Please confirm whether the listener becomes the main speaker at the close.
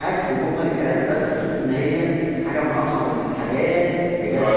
Yes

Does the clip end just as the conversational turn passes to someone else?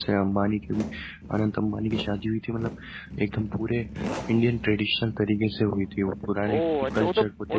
Yes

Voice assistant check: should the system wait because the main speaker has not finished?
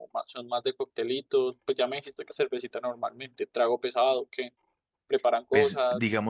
No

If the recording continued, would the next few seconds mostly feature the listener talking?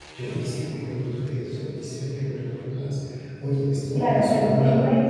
Yes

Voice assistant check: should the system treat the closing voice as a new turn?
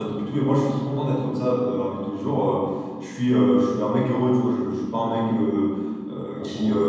No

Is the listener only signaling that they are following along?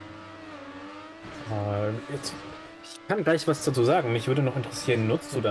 Yes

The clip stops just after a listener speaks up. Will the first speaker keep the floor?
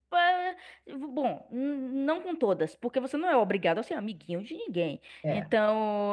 Yes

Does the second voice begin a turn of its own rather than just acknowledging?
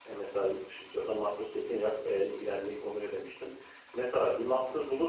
No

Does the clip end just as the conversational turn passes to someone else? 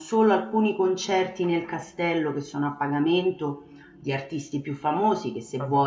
No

